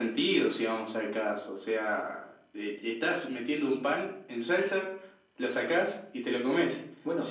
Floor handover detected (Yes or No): No